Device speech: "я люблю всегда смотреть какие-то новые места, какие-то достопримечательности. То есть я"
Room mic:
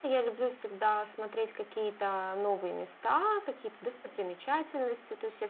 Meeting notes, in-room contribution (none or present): none